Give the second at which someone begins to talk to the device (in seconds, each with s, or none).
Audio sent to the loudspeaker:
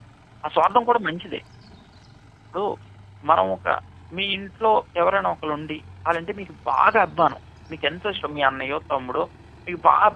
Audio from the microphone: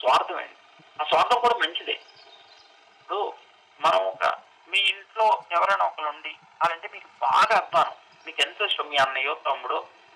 none